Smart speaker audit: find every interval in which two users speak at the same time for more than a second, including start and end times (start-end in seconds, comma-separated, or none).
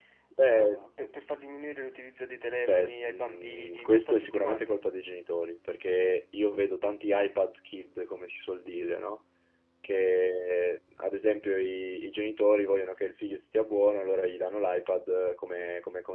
2.6-4.8